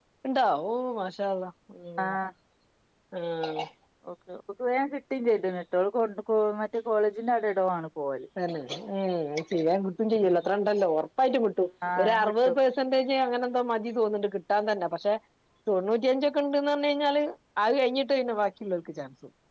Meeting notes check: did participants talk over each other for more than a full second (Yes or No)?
No